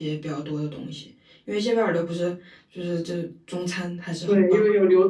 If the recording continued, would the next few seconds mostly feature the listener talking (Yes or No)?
Yes